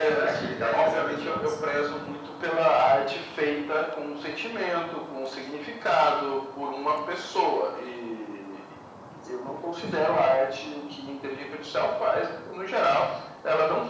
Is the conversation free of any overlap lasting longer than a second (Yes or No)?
No